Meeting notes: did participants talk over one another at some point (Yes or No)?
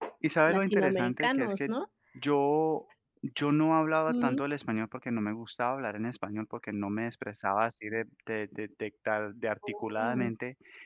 Yes